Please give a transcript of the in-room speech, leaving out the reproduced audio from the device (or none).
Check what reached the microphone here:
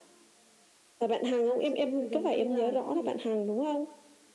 thời sự như là gần đây là cái gì